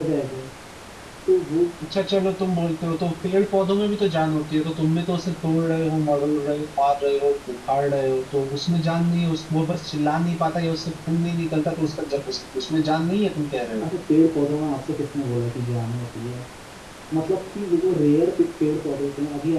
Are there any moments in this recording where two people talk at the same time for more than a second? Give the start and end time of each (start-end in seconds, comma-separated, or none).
none